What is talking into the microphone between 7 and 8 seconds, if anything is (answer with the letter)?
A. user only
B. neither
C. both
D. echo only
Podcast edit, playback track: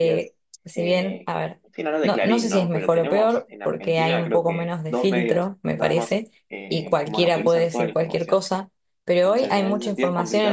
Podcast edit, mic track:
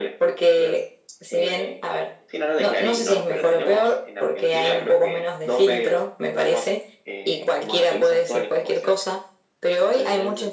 D